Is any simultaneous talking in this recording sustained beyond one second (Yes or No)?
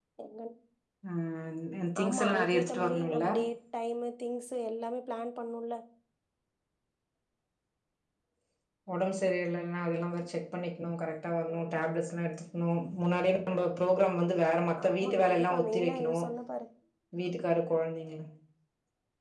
Yes